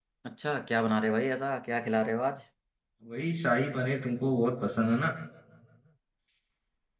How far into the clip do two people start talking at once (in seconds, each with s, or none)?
none